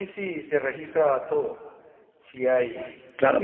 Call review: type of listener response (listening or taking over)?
taking over